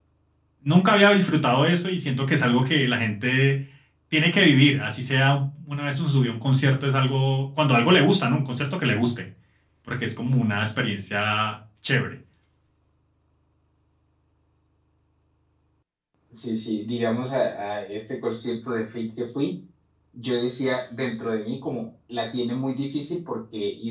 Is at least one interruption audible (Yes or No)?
No